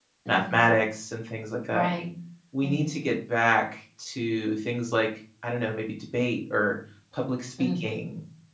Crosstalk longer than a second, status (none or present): none